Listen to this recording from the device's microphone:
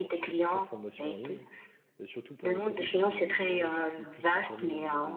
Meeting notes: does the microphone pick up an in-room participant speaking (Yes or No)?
Yes